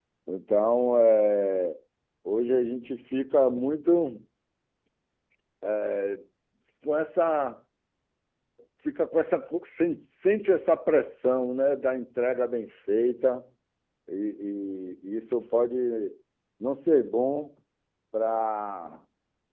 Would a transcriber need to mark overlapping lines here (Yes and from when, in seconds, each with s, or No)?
No